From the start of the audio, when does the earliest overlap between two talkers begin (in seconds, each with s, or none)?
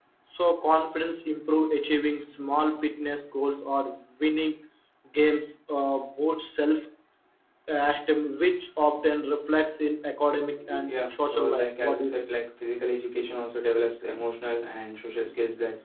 10.6 s